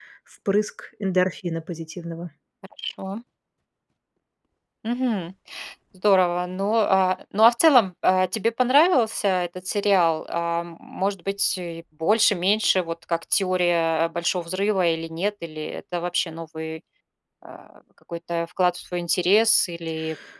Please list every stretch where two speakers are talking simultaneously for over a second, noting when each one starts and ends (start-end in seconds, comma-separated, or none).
none